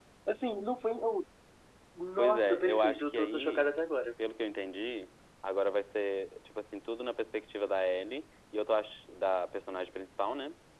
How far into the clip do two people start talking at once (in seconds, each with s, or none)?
2.2 s